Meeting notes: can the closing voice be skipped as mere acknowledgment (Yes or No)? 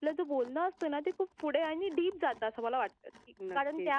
Yes